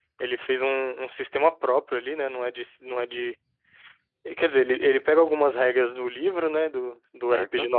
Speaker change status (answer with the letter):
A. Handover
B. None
B